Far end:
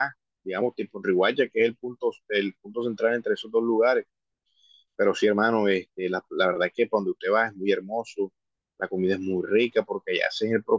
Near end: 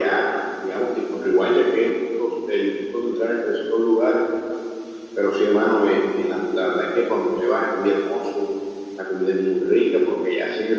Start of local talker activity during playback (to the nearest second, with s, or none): none